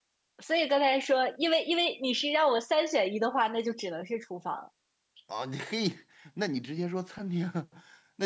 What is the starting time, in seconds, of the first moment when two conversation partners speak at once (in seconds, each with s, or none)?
none